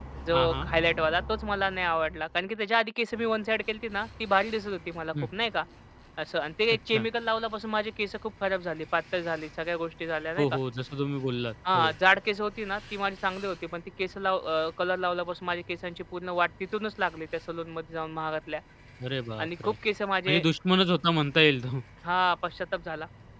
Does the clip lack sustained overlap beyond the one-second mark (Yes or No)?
Yes